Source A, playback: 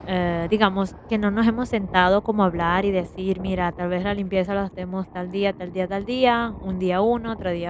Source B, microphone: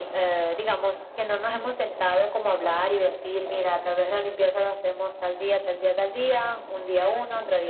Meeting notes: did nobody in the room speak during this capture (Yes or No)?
Yes